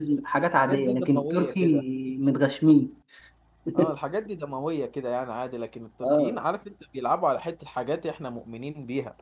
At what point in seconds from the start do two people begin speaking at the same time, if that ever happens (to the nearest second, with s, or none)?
1 s